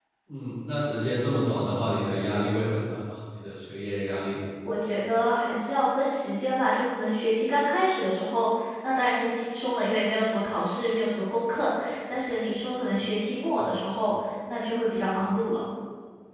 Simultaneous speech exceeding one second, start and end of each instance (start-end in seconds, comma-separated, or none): none